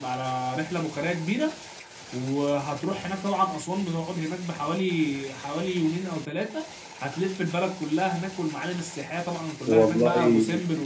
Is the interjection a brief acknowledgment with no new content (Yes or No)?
Yes